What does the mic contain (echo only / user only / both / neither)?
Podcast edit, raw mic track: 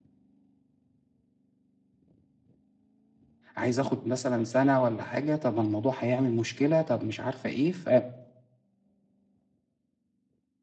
user only